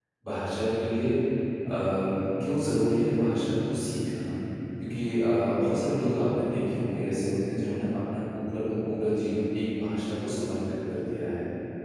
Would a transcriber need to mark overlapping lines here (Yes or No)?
No